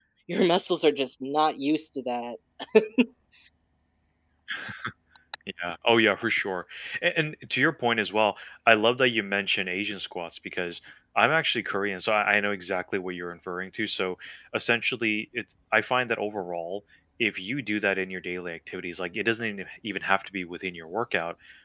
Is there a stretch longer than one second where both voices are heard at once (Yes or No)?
No